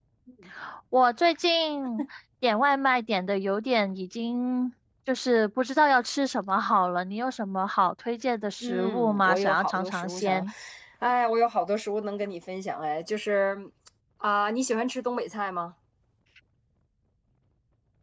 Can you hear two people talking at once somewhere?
Yes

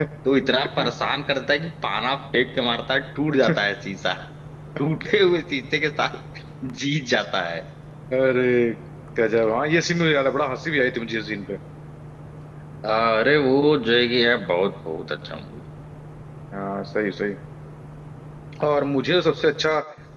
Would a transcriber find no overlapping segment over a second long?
Yes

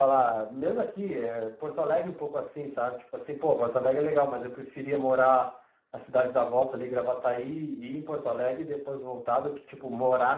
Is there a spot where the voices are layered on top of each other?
No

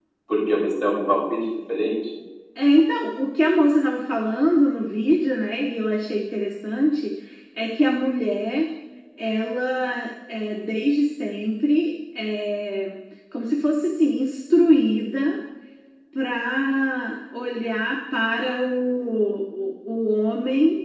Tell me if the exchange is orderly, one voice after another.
Yes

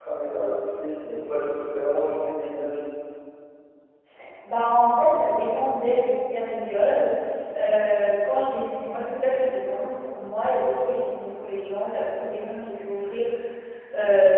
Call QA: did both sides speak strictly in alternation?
Yes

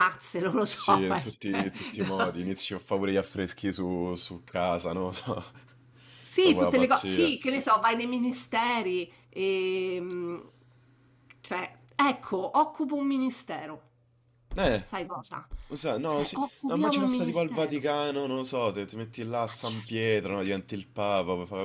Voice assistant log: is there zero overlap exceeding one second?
No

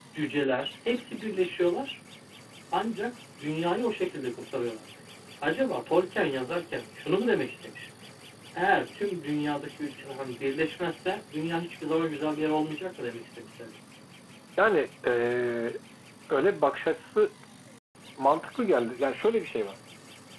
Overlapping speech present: No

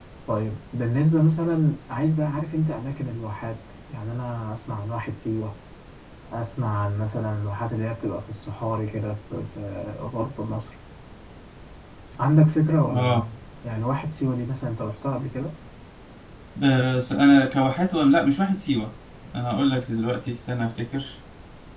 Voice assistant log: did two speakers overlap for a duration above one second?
No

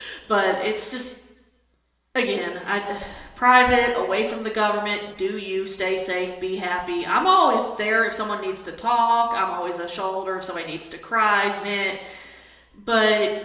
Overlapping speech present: No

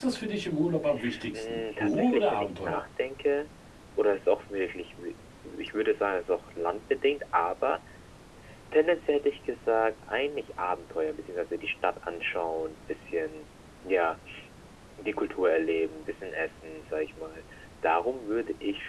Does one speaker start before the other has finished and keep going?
Yes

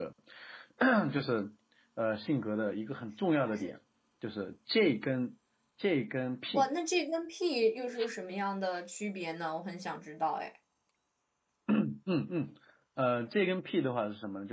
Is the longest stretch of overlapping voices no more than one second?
Yes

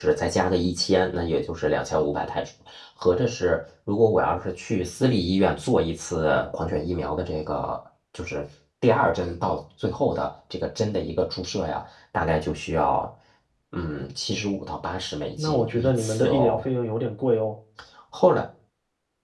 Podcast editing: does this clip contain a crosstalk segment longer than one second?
Yes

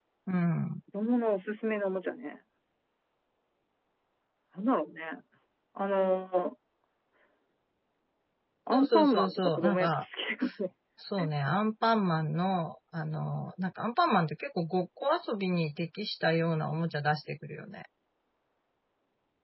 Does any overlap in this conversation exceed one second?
Yes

